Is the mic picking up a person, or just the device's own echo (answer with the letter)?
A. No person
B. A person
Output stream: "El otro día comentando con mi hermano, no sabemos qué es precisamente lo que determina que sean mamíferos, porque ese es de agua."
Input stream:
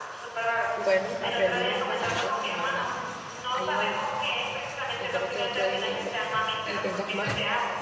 B